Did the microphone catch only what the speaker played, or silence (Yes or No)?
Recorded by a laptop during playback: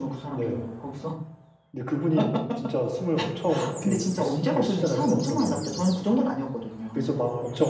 No